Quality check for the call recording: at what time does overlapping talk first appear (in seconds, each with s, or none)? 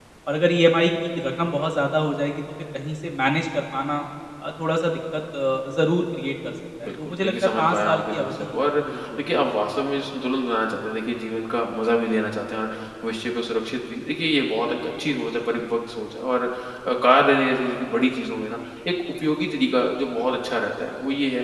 6.8 s